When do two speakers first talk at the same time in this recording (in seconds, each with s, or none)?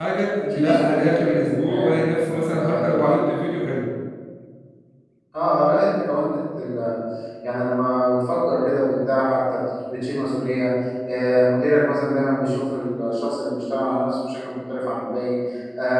0.6 s